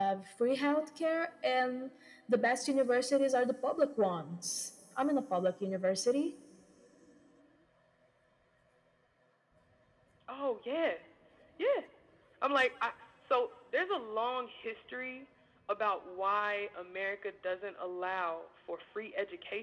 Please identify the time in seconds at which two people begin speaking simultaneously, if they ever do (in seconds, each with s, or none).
none